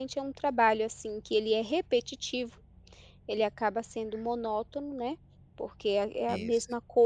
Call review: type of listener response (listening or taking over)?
listening